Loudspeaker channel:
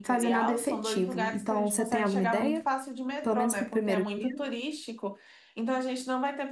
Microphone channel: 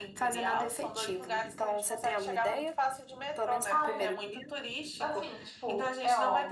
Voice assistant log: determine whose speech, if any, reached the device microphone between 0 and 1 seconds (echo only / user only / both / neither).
echo only